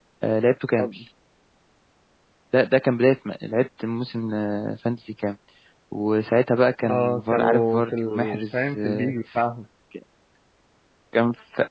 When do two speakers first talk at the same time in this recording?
6.8 s

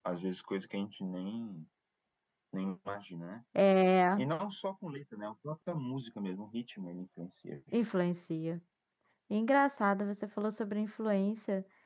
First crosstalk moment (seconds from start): none

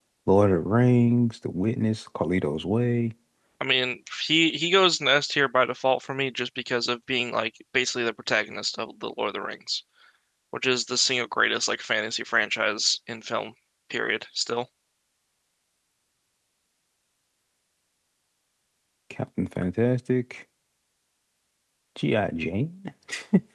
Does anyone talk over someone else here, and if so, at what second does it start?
none

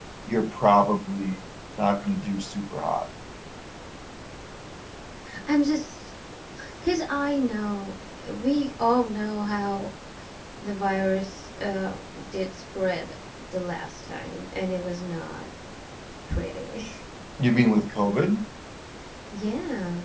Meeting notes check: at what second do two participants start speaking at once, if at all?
none

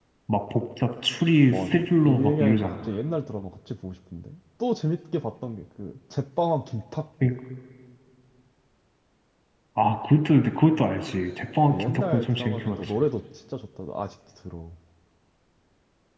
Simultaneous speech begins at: 1.5 s

